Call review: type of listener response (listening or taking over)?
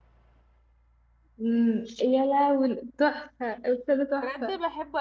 taking over